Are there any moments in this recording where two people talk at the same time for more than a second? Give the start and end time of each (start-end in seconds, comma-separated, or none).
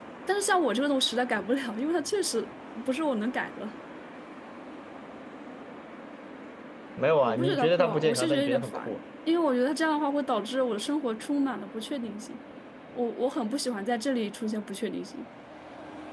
7.2-9.0